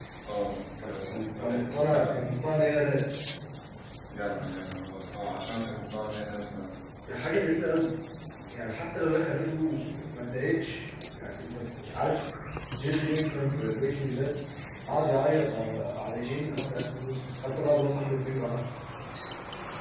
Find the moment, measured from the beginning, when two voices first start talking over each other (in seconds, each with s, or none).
0.9 s